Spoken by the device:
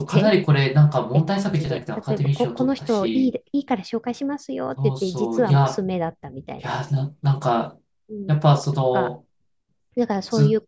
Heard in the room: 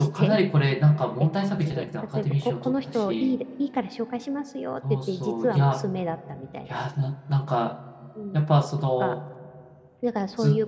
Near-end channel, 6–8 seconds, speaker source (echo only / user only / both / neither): echo only